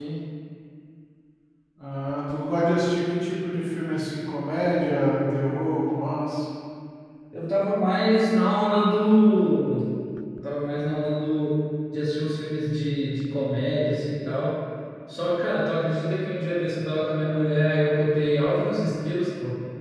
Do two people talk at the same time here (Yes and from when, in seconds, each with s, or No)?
No